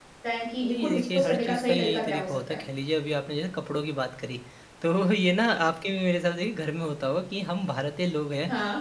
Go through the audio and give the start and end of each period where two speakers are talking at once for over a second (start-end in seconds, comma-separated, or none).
0.6-2.6